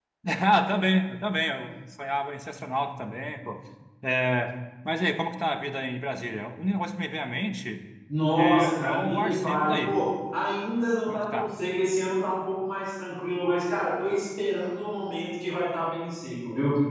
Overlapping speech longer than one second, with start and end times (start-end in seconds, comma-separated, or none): 8.3-10.0